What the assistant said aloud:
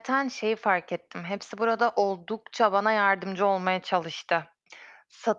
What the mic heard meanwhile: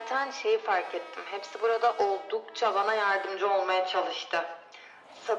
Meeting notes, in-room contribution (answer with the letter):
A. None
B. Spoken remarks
A